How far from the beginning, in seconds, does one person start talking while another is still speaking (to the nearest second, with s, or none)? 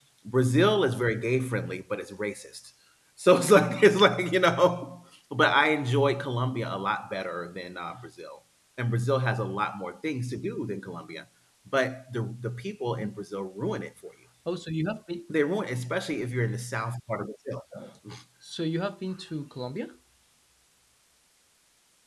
none